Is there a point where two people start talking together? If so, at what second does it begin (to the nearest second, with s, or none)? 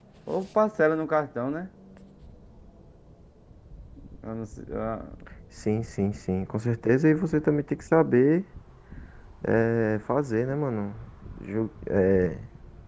none